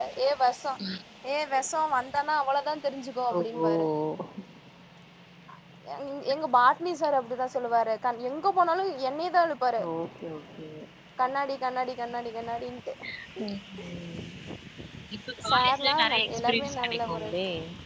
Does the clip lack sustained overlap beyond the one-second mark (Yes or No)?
No